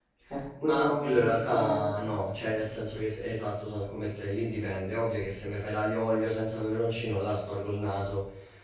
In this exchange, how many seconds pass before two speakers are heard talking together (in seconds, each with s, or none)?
0.6 s